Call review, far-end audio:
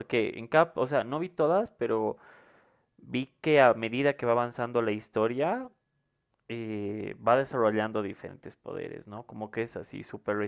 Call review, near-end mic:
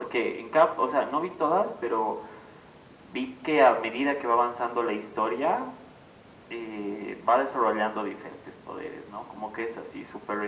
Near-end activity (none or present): none